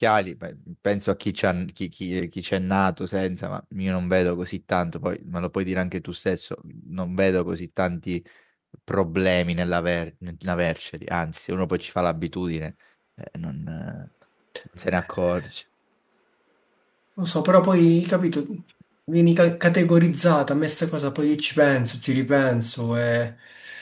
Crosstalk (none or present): none